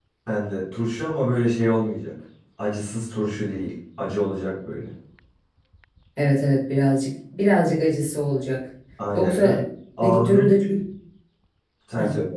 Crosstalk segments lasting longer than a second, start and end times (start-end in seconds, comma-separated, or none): none